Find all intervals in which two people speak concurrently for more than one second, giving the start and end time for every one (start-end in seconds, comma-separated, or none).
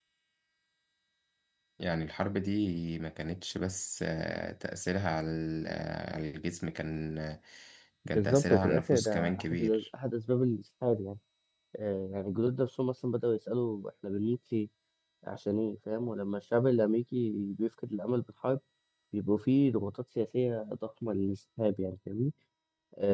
8.1-9.8